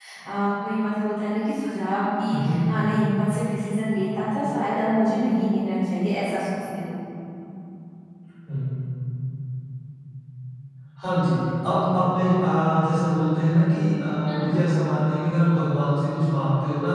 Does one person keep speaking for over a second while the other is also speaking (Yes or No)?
No